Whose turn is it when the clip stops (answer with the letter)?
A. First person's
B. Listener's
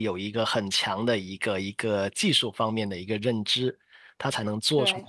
A